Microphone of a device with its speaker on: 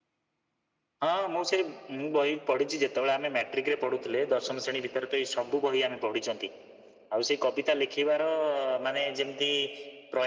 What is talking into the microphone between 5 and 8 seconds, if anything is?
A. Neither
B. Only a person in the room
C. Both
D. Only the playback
D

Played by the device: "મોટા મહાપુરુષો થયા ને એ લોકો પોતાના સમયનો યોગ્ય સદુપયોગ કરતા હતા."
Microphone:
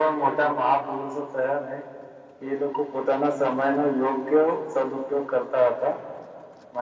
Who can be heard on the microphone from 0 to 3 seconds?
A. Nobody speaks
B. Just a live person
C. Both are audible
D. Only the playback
D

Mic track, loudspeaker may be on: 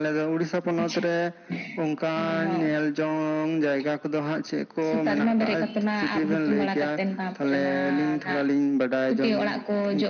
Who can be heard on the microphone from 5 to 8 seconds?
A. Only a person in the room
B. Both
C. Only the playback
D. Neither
C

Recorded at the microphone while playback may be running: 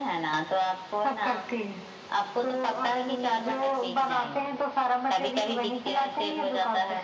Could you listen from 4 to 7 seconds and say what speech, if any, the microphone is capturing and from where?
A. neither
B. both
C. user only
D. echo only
D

